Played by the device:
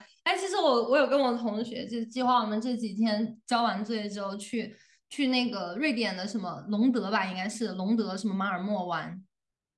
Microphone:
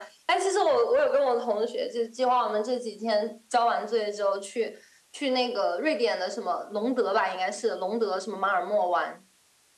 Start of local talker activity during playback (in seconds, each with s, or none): none